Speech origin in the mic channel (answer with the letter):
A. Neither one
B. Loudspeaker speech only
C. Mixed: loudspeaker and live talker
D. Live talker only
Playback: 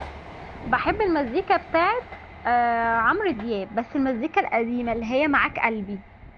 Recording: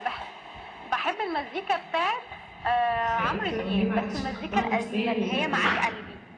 C